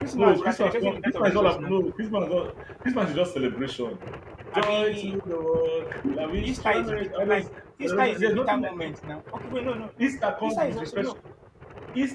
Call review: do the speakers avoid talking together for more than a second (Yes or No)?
No